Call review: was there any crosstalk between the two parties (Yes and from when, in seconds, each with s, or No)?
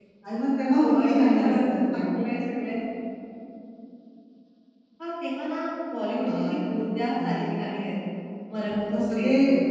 Yes, from 0.8 s